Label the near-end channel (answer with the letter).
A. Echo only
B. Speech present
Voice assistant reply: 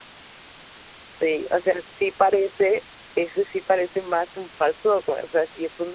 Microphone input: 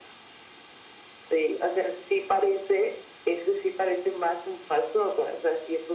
A